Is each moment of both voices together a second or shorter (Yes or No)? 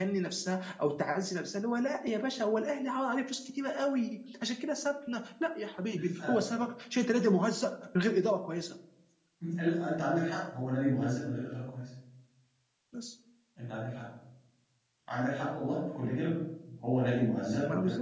Yes